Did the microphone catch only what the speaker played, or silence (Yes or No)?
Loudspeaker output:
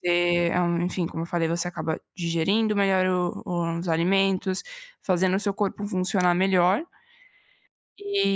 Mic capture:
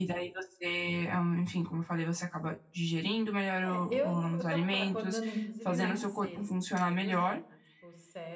No